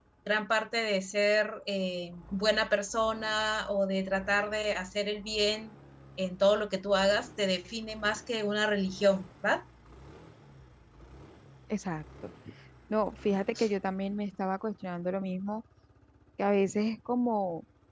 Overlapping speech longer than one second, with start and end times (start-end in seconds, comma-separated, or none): none